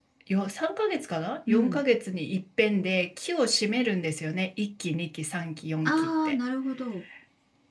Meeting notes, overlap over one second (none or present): none